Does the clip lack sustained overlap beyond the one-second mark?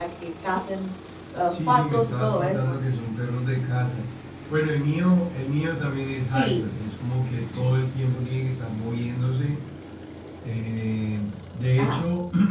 No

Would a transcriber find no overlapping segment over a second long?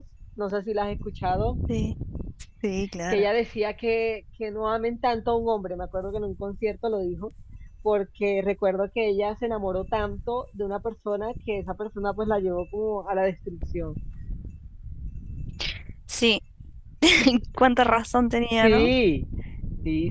Yes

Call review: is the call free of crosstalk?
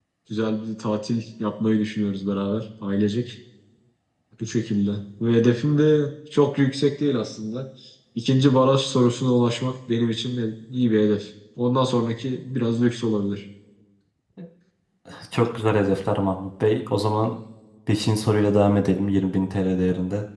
Yes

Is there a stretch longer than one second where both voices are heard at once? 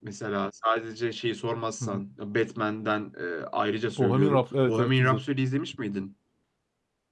Yes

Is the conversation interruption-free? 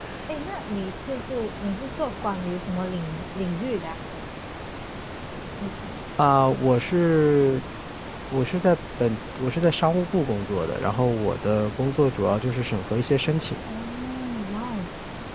Yes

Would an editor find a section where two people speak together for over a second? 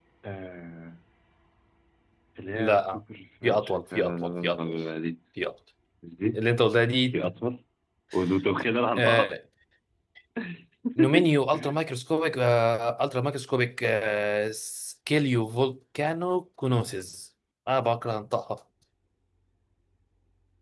Yes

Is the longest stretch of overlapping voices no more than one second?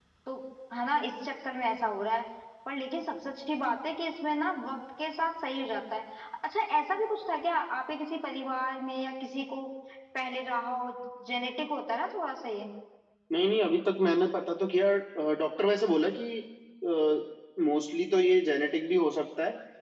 Yes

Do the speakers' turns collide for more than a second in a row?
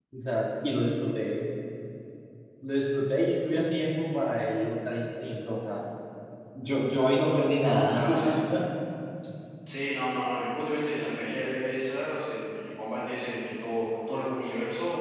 No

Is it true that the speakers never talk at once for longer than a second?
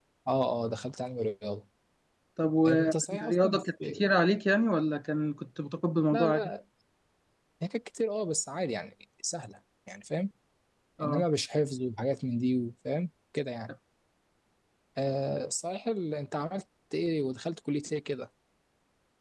No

